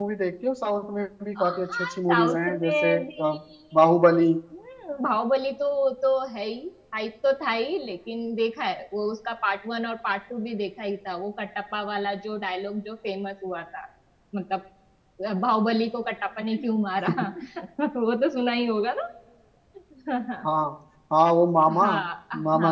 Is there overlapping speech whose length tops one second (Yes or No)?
Yes